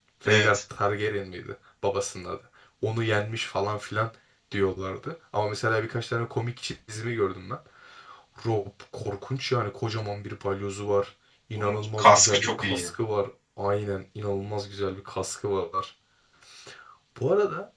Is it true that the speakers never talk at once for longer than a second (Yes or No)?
No